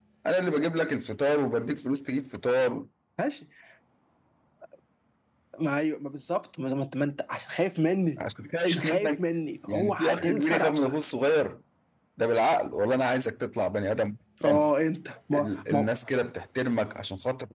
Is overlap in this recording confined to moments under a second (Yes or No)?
No